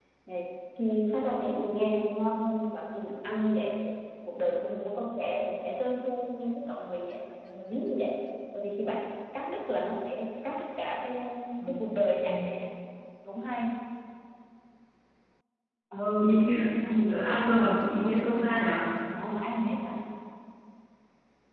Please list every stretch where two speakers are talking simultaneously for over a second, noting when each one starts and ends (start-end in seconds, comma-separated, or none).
17.1-18.9